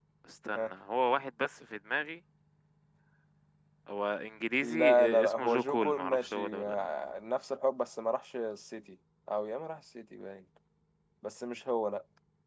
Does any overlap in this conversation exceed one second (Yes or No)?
Yes